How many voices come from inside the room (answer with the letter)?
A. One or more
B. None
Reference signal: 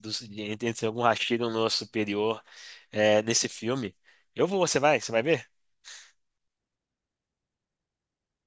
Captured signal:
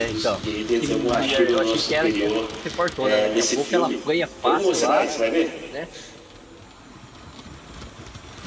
A